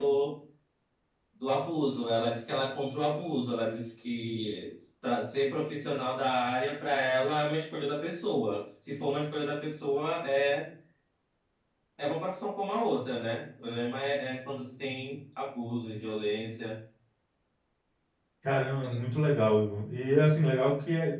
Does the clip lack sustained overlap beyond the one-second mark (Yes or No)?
Yes